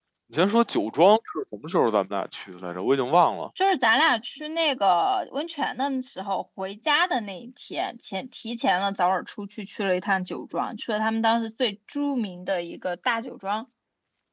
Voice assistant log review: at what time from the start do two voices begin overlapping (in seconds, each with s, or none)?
none